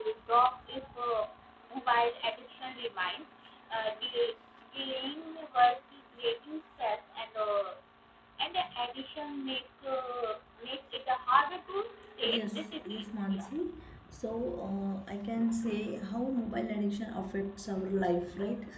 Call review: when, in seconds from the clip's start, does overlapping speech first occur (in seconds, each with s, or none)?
12.2 s